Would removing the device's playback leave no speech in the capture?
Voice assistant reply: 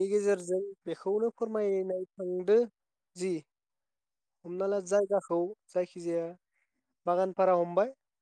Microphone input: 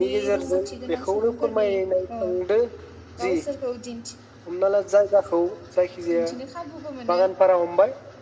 No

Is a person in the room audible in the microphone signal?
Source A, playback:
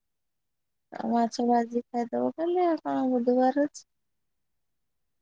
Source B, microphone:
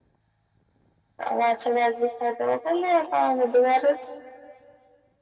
No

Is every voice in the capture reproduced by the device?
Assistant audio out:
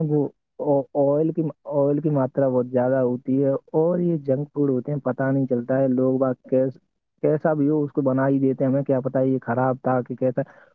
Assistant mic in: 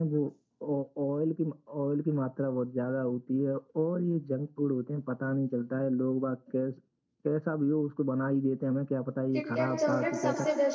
No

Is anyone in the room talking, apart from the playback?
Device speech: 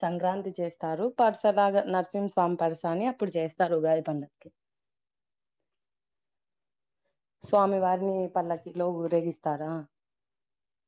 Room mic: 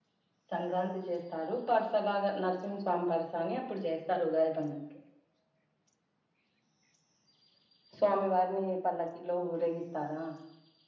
No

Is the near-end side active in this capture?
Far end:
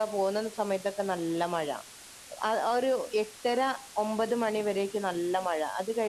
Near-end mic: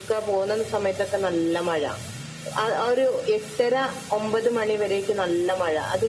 No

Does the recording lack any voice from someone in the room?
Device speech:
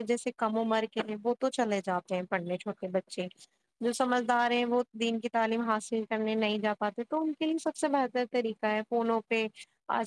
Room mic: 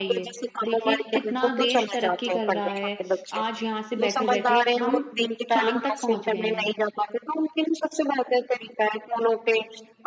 No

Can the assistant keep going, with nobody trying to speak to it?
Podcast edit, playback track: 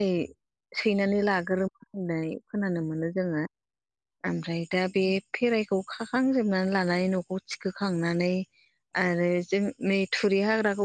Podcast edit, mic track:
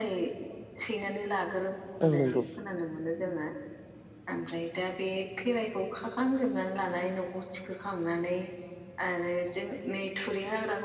No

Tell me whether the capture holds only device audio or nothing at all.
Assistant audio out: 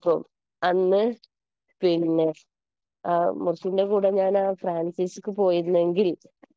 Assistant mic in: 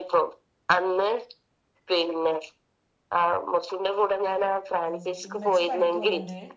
No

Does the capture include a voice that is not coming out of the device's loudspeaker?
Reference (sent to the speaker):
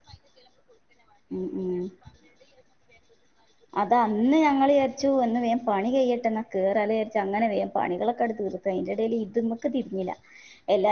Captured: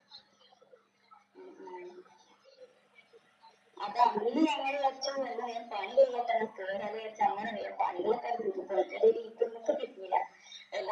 No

